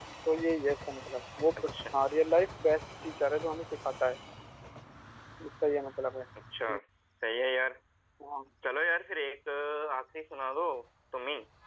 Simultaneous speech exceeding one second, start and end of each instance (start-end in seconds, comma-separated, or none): none